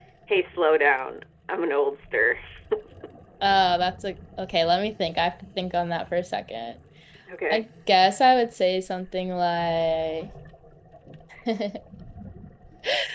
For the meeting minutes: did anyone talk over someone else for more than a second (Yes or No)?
No